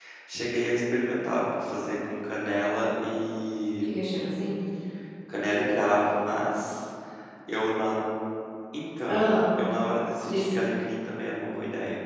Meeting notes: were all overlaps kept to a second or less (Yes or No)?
Yes